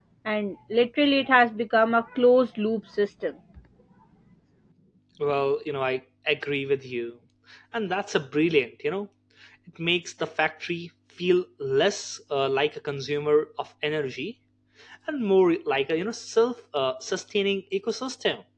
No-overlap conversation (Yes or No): Yes